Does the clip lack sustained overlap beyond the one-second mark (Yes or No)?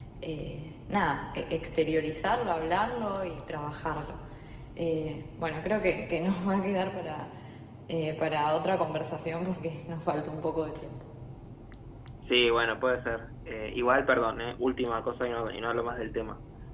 Yes